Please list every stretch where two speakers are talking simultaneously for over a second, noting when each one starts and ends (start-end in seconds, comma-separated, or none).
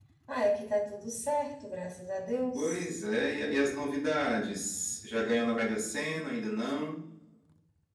none